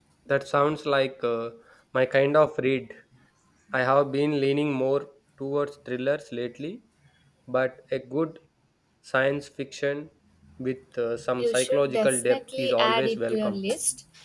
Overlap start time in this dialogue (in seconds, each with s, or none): 11.4 s